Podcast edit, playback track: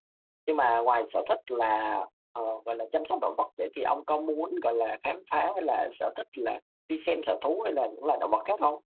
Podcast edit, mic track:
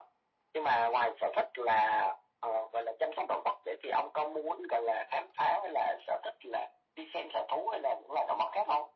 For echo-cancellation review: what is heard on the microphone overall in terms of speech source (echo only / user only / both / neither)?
echo only